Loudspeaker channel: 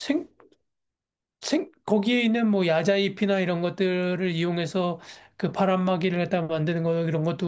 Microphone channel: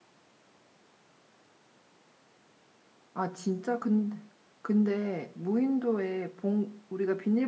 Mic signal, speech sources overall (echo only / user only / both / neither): user only